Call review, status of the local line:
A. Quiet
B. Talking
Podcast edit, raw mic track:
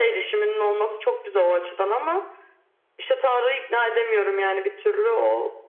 A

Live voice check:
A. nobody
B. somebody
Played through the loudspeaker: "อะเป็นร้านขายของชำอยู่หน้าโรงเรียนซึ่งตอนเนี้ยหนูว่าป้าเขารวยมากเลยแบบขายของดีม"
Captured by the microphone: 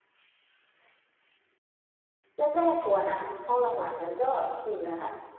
B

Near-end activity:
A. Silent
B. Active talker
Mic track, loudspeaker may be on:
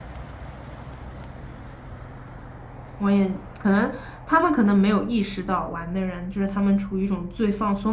B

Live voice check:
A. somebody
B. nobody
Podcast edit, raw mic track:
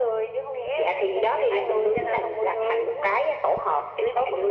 B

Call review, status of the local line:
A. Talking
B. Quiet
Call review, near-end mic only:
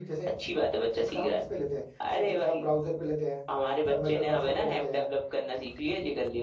B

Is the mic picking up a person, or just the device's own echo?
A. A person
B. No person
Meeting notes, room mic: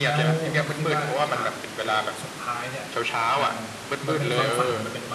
A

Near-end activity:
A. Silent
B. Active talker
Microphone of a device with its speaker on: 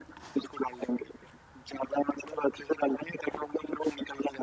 A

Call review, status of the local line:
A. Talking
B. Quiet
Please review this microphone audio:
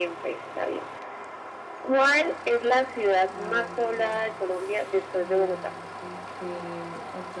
A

